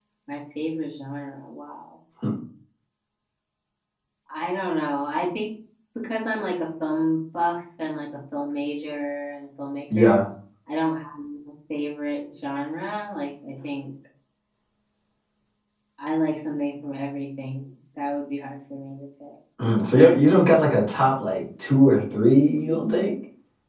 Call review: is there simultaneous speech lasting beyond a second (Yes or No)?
No